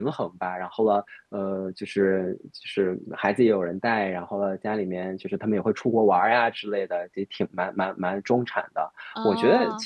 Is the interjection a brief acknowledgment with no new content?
Yes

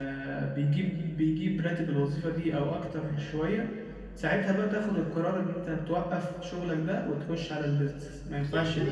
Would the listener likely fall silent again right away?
No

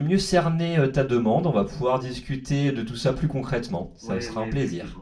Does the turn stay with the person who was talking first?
No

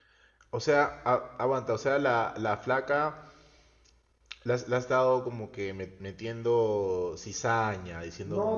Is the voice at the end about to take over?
Yes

